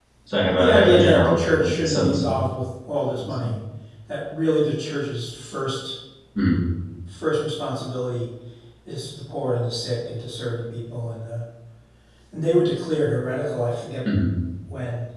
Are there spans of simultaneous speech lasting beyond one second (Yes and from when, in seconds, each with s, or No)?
Yes, from 0.5 s